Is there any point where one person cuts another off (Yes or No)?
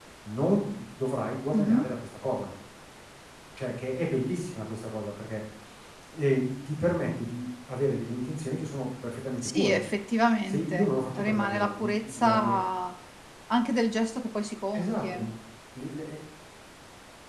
Yes